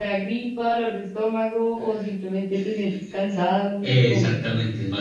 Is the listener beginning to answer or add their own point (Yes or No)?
Yes